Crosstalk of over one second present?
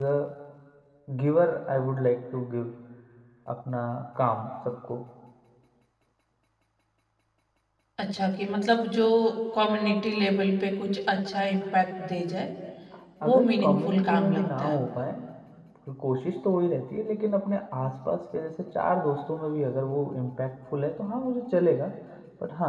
Yes, from 13.3 s

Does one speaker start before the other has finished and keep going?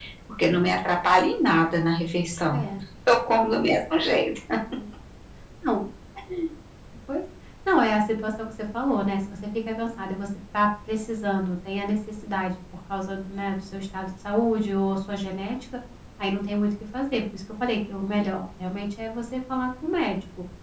No

